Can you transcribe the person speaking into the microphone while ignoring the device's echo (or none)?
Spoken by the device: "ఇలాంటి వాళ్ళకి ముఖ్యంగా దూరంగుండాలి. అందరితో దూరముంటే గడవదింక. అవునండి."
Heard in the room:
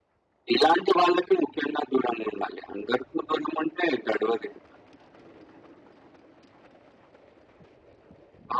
none